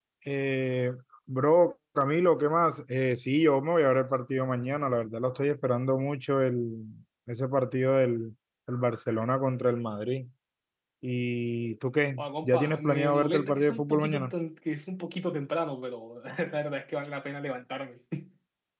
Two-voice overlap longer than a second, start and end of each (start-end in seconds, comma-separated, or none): 12.2-14.3